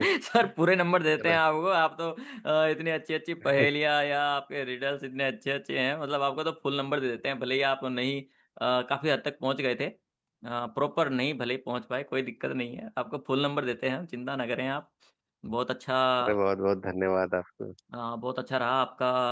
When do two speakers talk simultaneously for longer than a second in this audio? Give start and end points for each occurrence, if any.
none

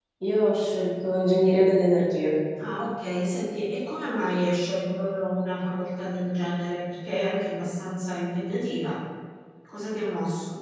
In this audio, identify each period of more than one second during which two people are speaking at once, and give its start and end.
none

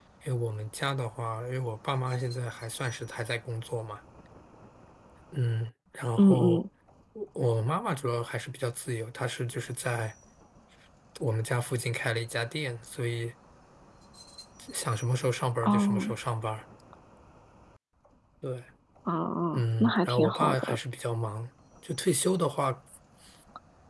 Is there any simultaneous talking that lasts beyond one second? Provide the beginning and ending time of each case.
19.5-20.8

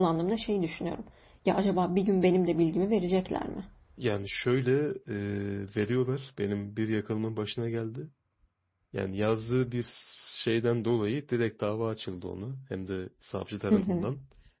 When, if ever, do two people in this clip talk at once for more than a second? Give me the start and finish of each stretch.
none

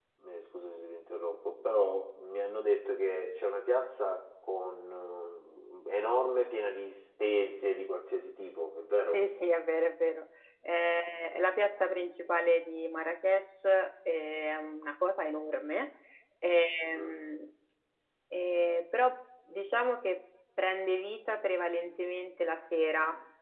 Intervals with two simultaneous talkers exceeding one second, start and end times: none

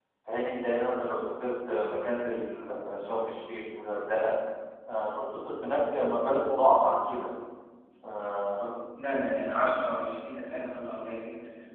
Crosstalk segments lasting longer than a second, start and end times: none

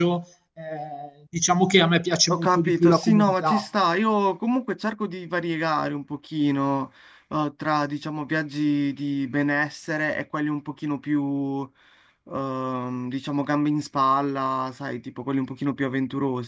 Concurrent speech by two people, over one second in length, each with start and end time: 2.3-3.6

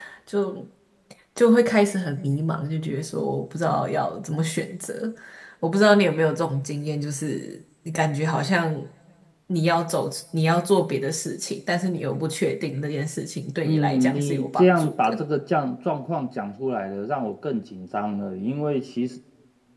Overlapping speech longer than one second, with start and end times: 13.7-15.2

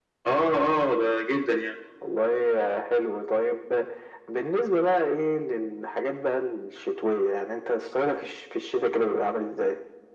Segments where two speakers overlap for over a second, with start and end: none

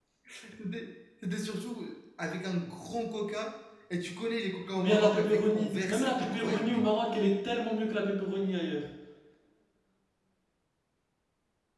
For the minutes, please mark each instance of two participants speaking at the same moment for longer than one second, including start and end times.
4.8-6.8

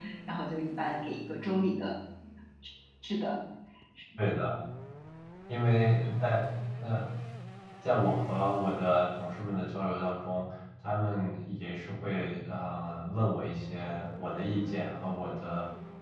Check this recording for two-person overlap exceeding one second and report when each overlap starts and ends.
none

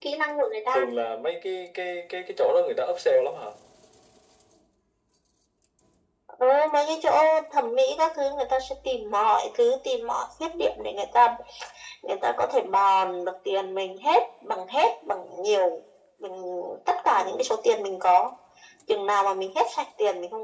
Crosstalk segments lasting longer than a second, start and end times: none

